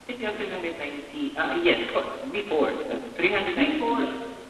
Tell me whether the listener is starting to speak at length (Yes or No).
No